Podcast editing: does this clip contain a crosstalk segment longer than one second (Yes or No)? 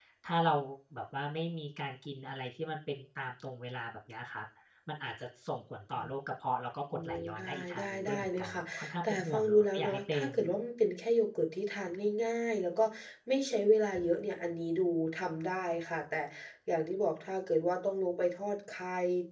Yes